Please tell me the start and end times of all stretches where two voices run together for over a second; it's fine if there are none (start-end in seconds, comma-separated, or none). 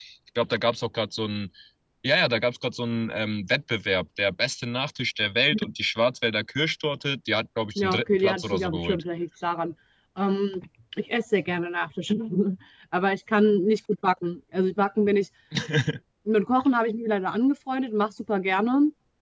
7.8-9.0